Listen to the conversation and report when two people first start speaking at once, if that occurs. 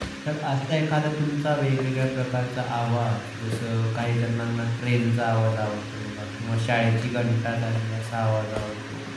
none

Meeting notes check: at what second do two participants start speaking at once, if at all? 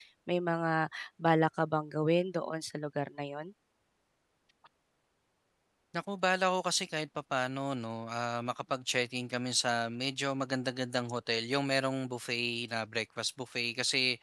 none

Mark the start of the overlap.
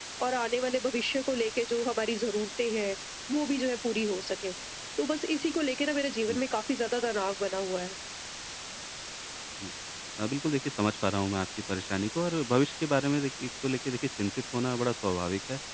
none

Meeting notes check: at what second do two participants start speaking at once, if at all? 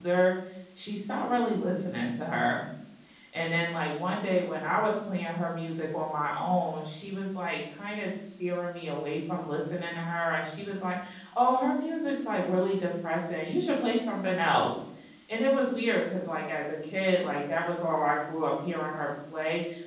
none

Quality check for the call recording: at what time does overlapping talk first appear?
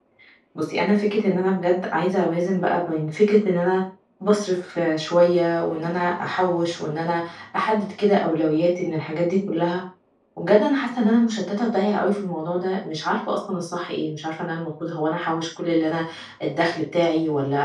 none

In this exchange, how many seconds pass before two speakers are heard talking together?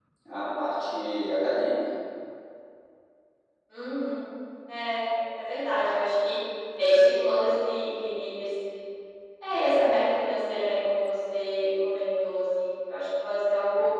none

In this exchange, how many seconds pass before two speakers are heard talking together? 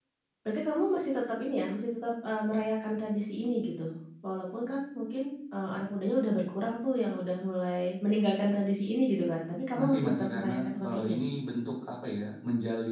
9.7 s

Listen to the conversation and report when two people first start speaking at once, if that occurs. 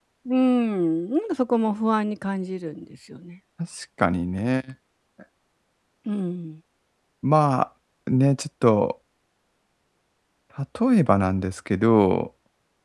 none

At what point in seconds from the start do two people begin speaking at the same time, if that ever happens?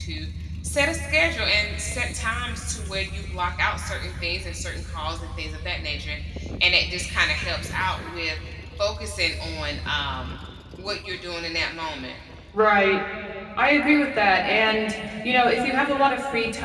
none

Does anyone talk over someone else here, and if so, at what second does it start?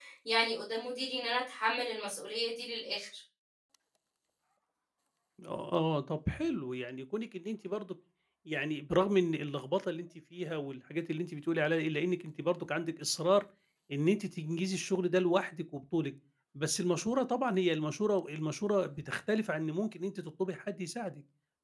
none

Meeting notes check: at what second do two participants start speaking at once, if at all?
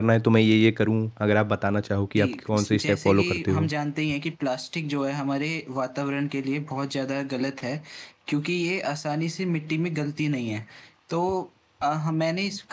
2.1 s

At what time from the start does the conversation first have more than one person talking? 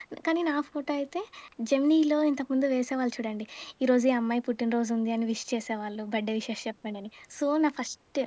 none

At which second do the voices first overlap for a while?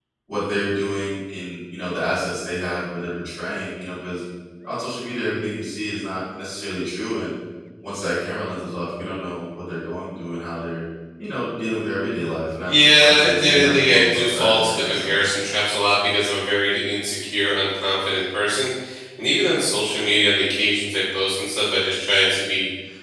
12.7 s

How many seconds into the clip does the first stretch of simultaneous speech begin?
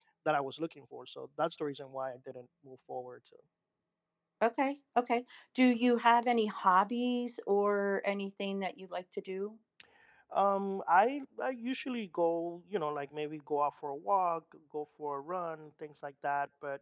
none

